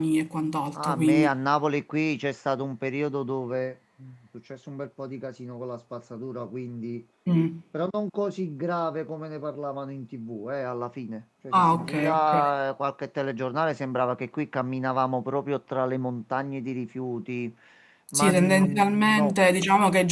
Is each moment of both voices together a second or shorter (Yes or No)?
No